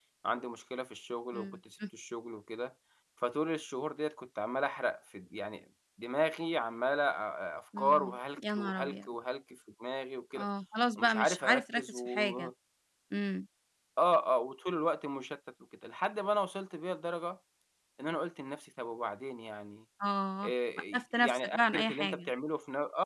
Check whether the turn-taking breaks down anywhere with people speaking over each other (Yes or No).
Yes